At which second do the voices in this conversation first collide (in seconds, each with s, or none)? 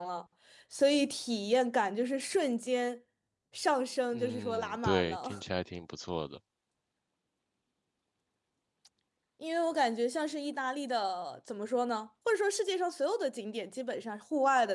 4.1 s